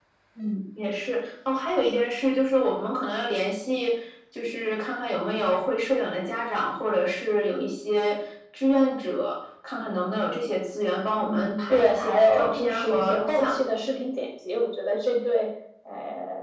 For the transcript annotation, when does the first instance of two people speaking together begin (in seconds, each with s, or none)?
11.2 s